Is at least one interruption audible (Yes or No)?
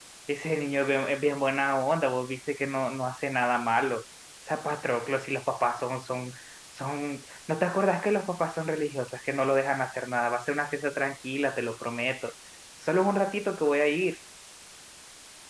No